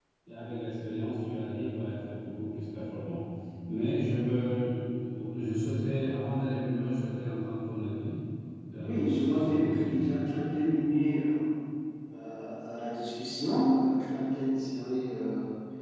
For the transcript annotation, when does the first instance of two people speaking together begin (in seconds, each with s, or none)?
8.8 s